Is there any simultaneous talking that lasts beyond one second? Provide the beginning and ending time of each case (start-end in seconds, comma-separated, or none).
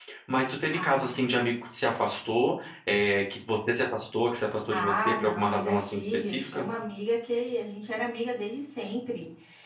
4.7-6.7